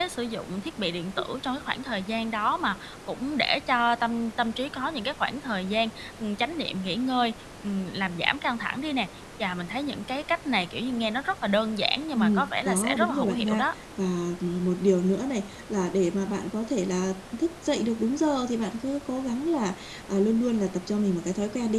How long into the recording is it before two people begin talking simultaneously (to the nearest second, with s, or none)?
12 s